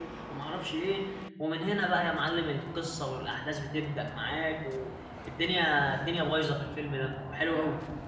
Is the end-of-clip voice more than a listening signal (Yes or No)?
Yes